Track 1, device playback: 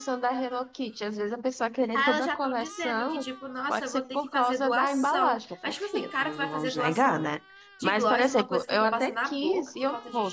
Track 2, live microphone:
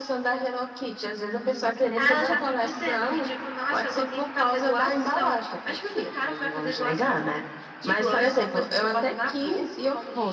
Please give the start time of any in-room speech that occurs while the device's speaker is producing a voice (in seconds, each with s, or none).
none